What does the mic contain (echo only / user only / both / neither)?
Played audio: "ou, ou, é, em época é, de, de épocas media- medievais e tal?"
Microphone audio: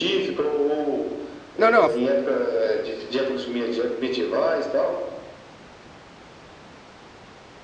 both